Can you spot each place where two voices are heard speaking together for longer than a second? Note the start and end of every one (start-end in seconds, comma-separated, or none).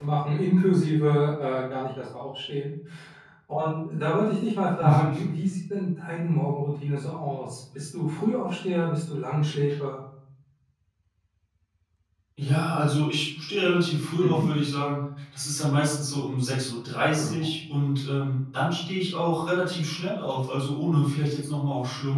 none